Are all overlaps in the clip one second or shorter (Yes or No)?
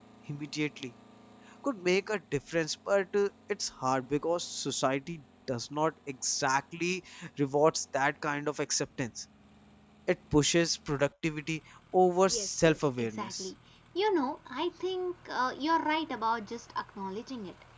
No